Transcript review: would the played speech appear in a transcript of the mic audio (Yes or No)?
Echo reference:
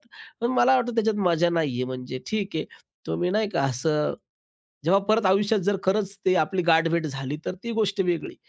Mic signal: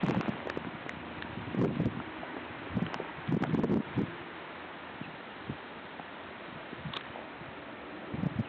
No